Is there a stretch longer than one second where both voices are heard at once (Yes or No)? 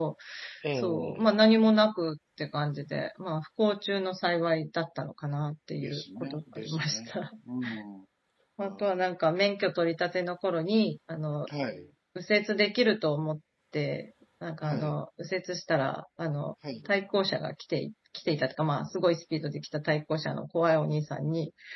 Yes